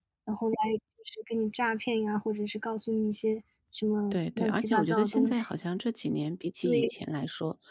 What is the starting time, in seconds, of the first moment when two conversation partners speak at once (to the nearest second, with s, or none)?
4 s